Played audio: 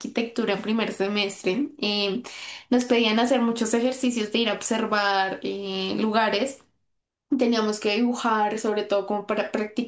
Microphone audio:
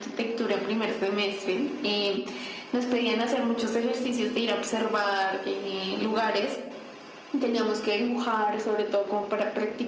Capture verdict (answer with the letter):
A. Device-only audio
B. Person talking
A